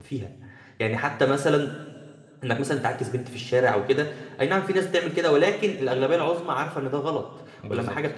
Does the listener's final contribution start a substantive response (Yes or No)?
No